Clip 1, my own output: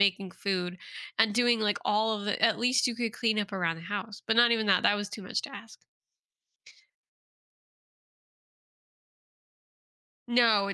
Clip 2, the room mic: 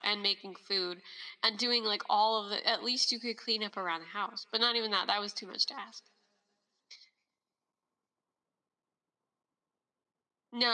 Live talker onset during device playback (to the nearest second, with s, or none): none